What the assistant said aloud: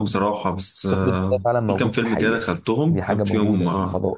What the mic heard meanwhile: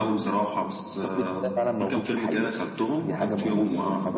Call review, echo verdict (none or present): present